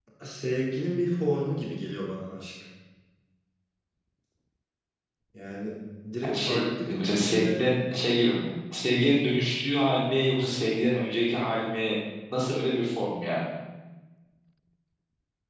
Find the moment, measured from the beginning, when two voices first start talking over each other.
6.2 s

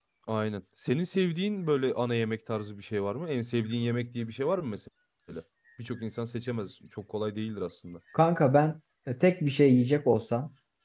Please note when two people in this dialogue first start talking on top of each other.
none

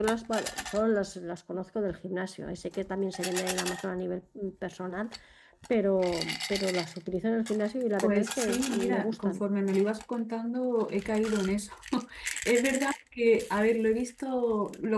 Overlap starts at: 8.0 s

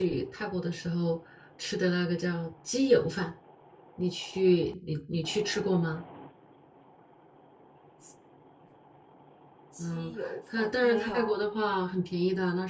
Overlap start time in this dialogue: 9.8 s

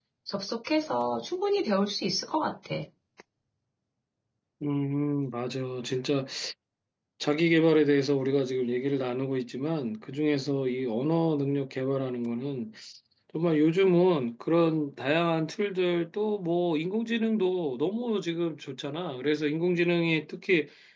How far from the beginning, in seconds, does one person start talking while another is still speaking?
none

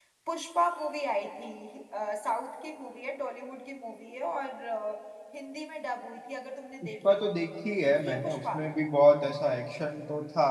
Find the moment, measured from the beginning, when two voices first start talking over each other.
6.8 s

